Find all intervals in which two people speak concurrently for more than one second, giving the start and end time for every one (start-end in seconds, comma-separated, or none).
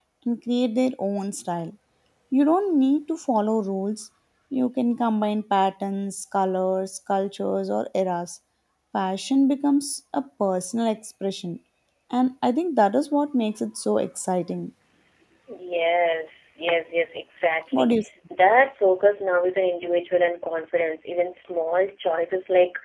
none